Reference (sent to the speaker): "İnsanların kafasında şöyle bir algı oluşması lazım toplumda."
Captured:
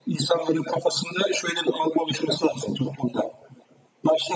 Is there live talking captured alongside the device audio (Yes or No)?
No